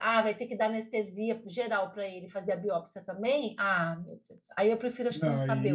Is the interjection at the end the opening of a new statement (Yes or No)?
Yes